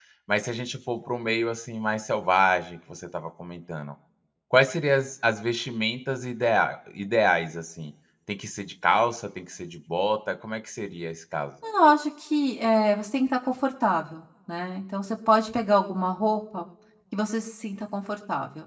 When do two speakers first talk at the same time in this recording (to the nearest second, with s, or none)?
none